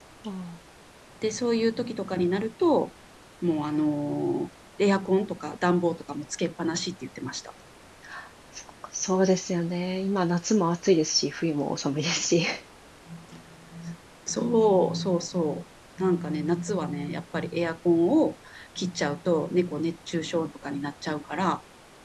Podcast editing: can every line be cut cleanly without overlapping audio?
Yes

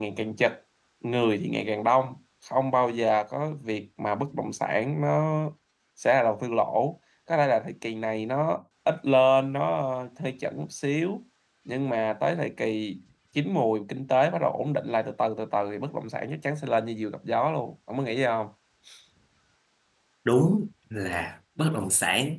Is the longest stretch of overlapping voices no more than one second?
Yes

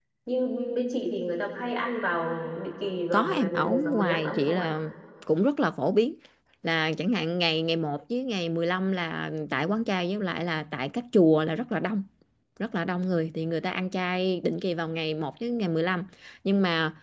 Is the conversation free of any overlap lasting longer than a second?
No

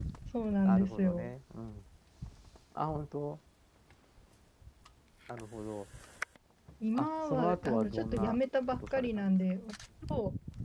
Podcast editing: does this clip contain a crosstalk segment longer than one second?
Yes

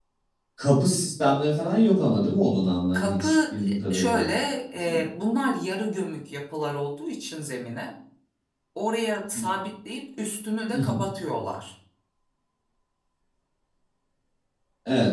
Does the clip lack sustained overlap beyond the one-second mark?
No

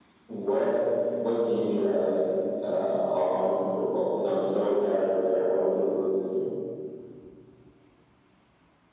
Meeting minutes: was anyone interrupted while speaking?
No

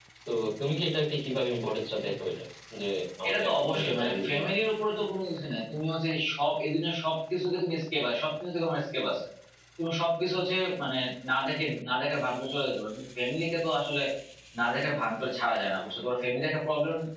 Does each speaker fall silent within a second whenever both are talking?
No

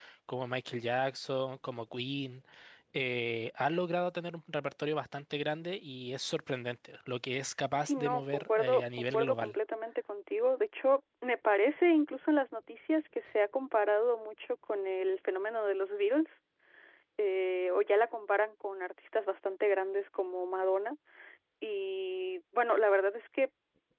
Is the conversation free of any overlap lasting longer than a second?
No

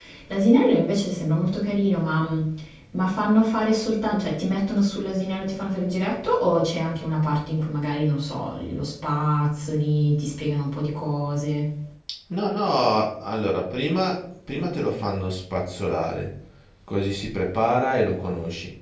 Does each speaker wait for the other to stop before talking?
Yes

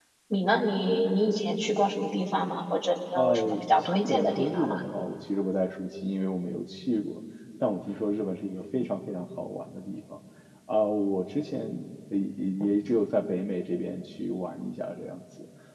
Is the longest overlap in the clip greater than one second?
Yes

